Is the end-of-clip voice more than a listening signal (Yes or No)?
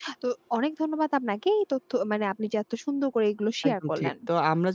Yes